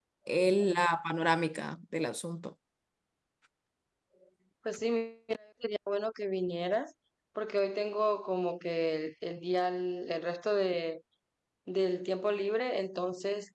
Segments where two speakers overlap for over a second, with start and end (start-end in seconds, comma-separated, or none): none